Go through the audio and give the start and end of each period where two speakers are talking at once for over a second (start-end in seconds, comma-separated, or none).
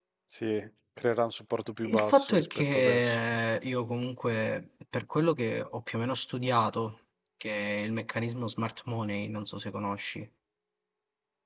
1.9-3.2